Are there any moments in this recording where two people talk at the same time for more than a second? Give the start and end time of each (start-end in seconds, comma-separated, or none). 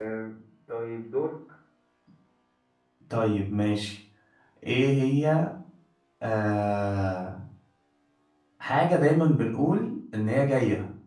none